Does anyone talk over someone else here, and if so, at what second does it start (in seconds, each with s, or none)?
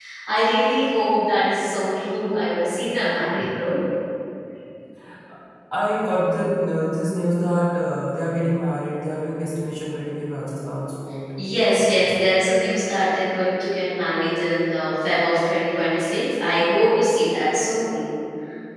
none